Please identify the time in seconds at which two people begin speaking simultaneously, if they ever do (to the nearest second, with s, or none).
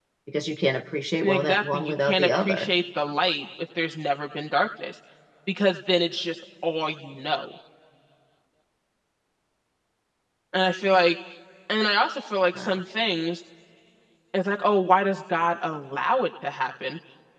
1 s